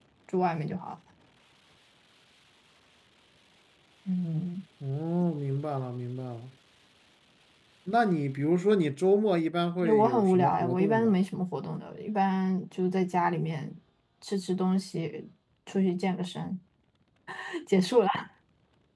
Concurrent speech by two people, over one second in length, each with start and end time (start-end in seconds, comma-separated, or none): 9.8-11.2